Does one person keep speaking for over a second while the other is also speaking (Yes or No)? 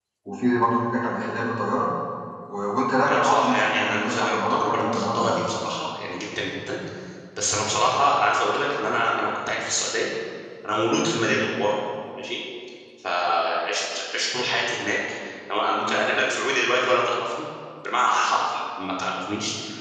Yes